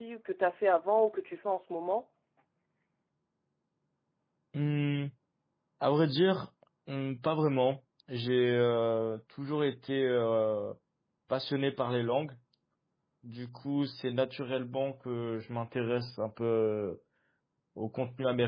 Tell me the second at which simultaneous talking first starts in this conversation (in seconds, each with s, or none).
none